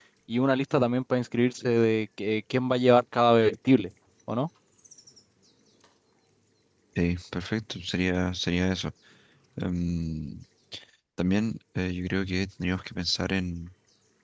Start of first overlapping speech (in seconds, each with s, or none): none